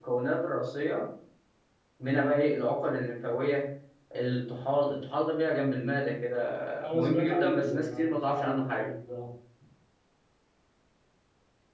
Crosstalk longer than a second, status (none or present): present